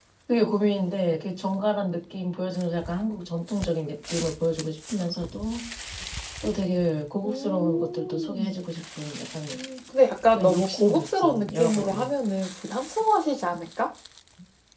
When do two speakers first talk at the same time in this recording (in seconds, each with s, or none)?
7.2 s